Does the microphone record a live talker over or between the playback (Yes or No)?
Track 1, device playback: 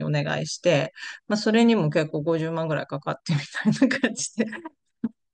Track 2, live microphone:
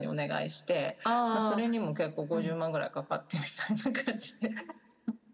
Yes